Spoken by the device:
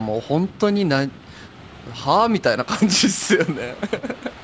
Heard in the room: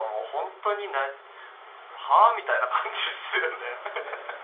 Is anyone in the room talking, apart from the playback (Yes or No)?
Yes